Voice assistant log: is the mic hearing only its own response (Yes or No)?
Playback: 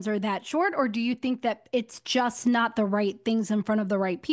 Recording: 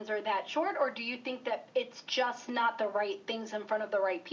Yes